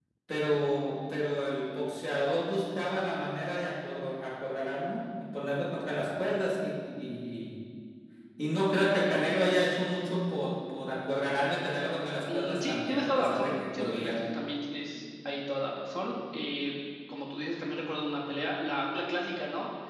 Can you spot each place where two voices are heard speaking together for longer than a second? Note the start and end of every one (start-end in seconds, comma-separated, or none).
12.3-14.3